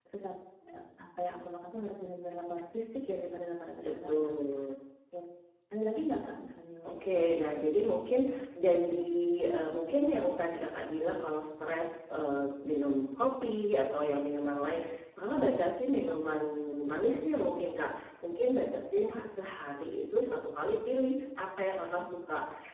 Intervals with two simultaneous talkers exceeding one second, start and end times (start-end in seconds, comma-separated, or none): none